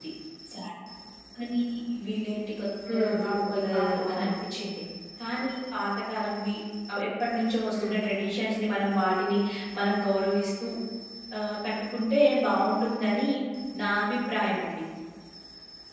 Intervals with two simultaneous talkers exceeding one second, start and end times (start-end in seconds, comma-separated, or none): 2.9-4.3